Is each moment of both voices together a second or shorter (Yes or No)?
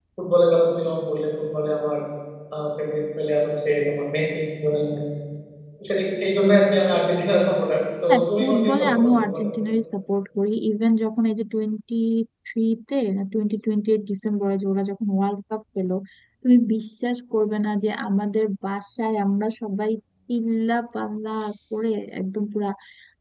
No